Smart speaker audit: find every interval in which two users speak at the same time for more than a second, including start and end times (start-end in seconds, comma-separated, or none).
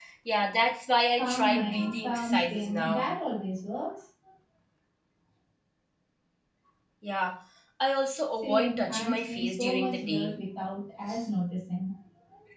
1.2-3.1, 8.4-10.4